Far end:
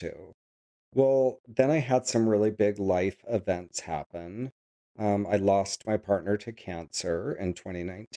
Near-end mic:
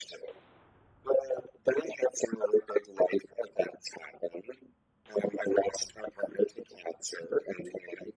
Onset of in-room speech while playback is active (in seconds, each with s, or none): none